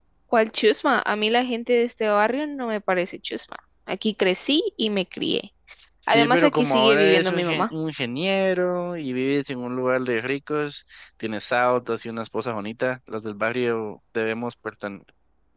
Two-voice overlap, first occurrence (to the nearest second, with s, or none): 6 s